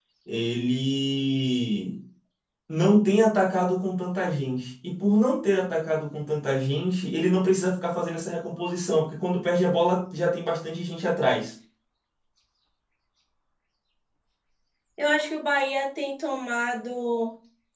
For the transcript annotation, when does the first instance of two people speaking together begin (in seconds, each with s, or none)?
none